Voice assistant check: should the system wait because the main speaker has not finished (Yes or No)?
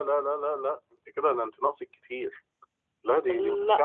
Yes